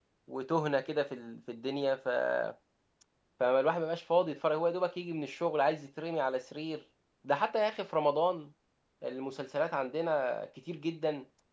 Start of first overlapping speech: none

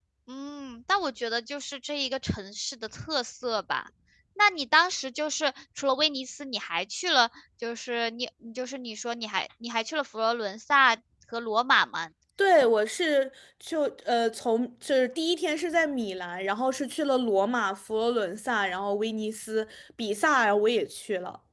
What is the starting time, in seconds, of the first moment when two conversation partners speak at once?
none

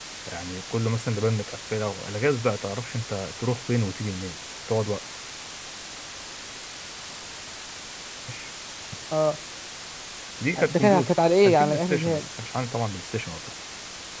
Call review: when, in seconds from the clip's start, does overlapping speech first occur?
10.6 s

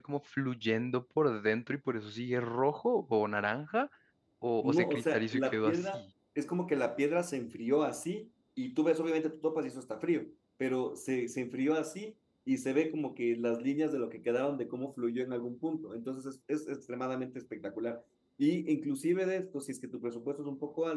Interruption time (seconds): 4.6 s

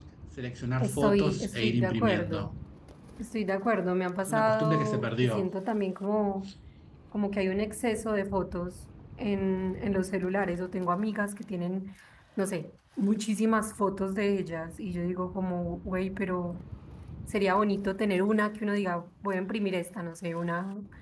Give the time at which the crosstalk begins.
0.8 s

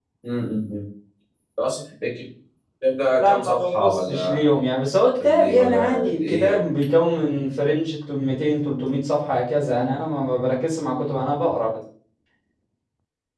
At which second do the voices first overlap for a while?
3.2 s

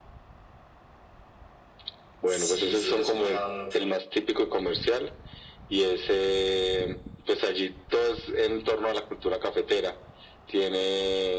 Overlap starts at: 2.3 s

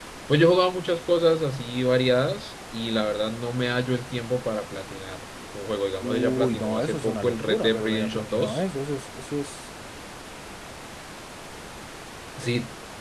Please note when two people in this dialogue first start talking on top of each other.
6.0 s

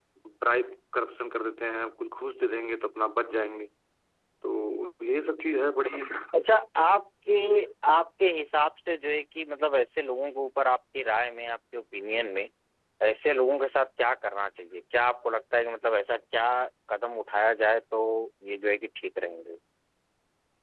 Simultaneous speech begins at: none

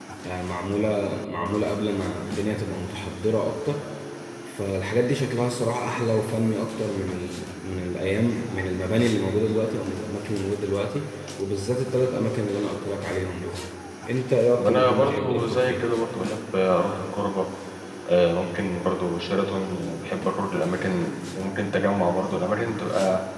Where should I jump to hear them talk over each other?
14.6 s

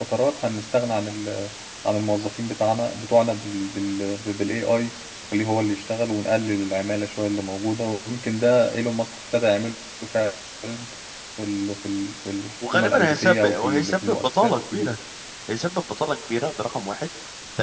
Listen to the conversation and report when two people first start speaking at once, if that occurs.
12.6 s

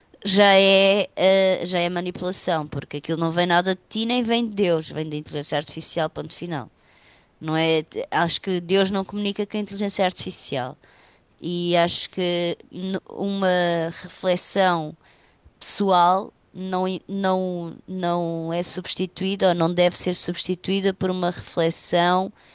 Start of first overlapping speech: none

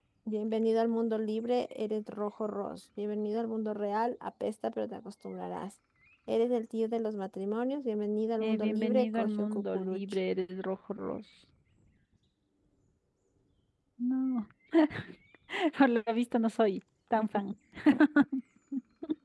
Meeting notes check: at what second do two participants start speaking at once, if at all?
8.4 s

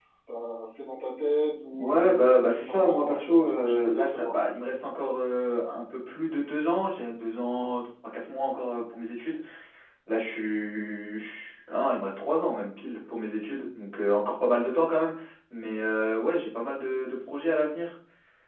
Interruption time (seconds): 1.7 s

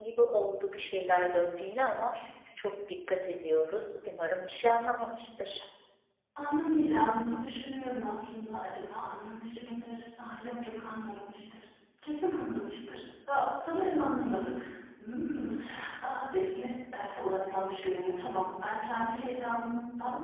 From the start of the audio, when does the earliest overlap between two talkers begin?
none

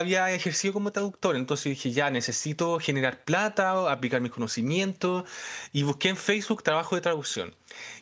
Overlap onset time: none

